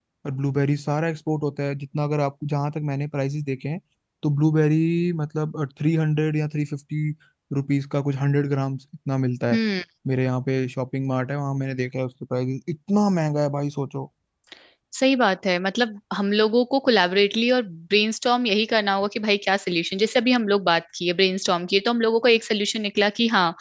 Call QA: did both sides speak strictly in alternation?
Yes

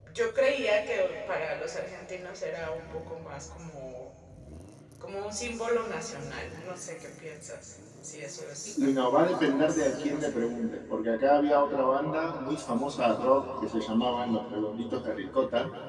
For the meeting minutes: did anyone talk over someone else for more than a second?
Yes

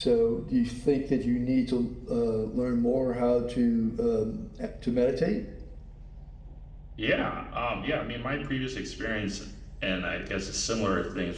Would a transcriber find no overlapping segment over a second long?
Yes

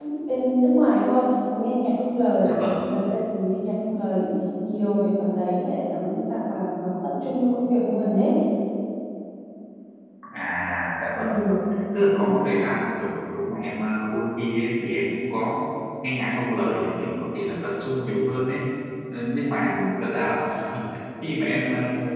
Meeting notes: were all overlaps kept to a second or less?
Yes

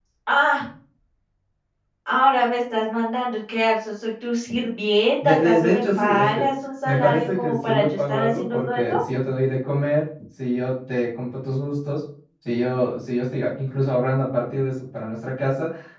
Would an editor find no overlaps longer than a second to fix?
No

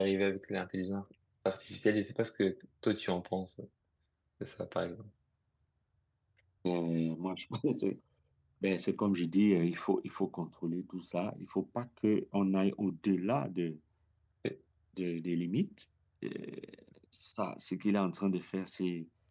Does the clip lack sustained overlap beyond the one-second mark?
Yes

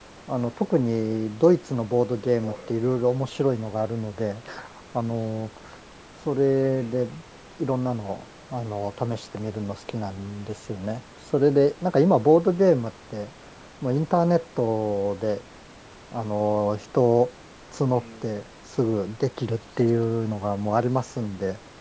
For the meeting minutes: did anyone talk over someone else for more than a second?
No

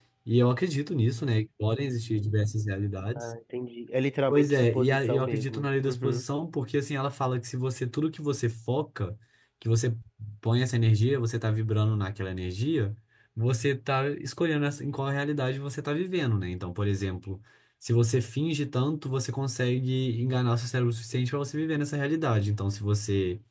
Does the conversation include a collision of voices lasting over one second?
Yes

